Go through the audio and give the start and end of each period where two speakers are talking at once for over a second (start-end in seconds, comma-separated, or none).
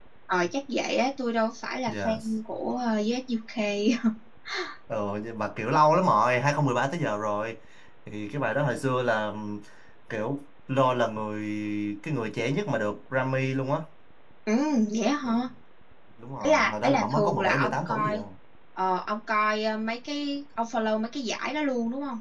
16.4-18.2